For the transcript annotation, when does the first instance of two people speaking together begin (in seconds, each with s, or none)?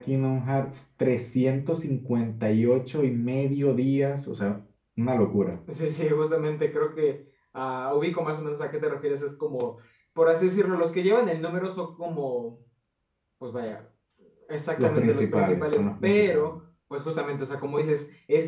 14.8 s